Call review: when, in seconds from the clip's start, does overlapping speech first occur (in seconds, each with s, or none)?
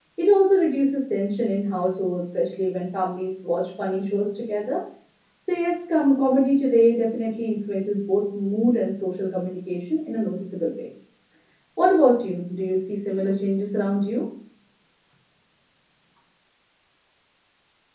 none